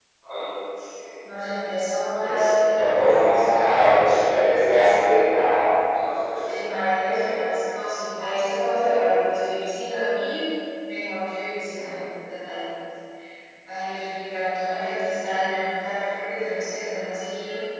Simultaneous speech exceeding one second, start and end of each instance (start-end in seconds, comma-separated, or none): 2.2-3.5